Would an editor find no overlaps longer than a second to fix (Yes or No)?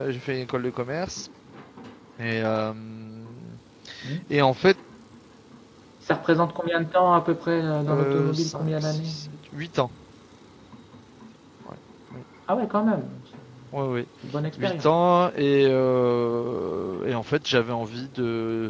No